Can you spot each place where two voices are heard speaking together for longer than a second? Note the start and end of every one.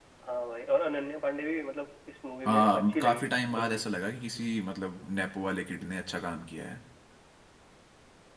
2.5-3.8

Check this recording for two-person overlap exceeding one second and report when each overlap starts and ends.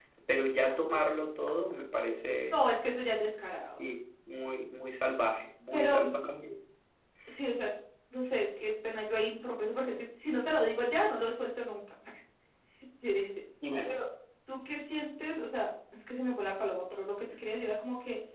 none

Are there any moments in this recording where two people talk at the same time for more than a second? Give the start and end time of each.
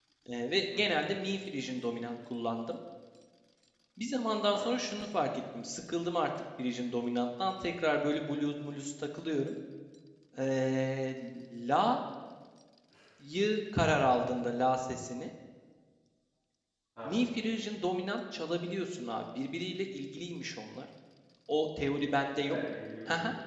none

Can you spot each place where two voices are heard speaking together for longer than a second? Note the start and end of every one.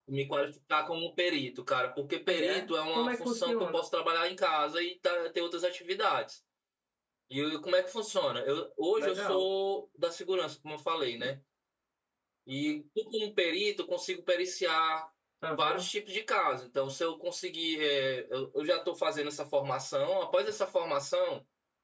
2.3-3.8

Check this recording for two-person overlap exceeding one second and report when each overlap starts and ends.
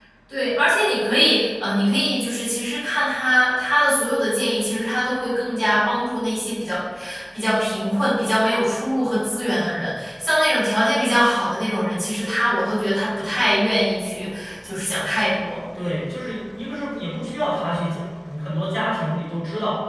none

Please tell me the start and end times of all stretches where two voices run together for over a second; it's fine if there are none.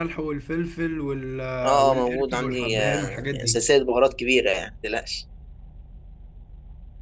1.8-3.6

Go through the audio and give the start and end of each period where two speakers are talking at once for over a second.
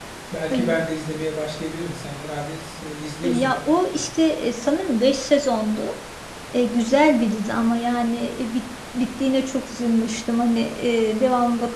none

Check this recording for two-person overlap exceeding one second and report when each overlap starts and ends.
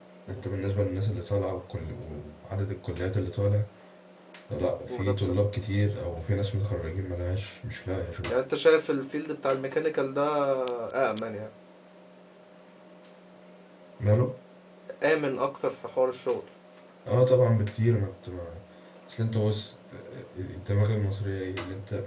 none

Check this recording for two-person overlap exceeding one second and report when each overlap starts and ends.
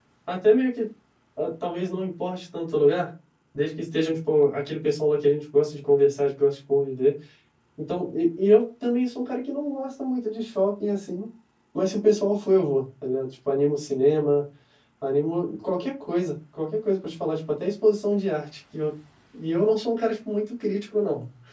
none

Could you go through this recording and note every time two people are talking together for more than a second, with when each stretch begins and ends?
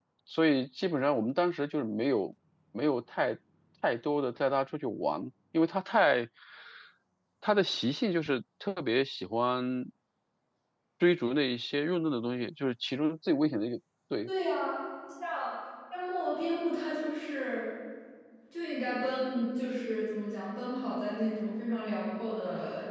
none

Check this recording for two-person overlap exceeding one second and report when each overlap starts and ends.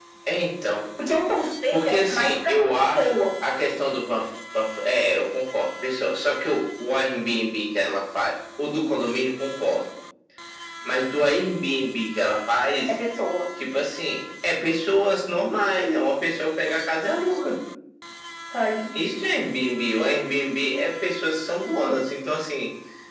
1.7-3.1

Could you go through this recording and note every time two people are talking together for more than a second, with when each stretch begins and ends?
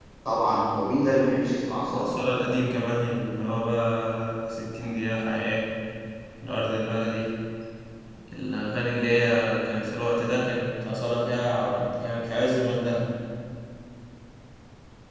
none

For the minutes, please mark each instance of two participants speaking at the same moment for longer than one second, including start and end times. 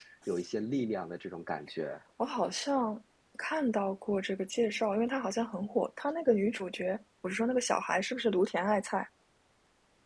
none

